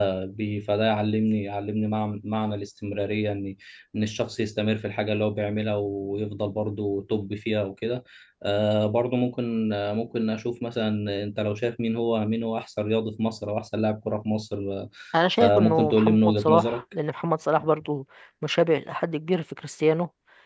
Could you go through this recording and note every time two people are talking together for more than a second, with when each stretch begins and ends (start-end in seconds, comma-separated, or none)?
15.4-16.8